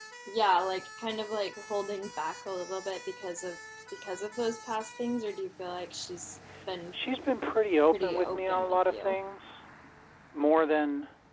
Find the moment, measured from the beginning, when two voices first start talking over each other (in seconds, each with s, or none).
7.9 s